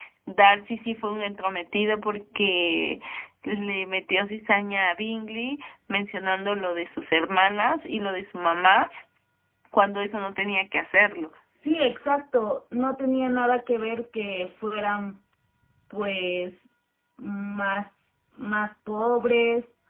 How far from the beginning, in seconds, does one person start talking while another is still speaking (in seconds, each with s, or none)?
none